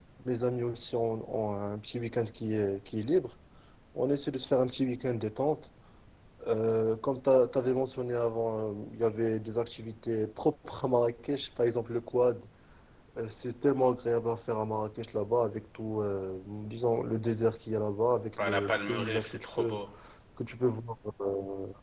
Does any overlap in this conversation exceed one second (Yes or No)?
Yes